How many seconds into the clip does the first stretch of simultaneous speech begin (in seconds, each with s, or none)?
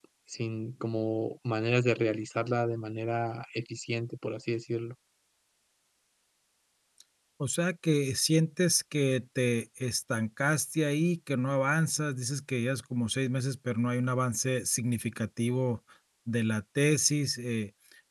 none